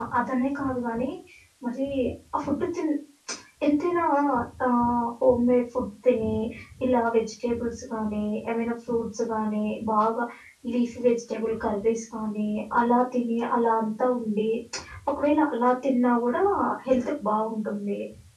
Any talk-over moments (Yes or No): No